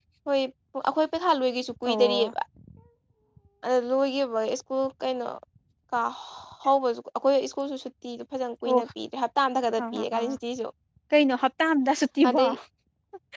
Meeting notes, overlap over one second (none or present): none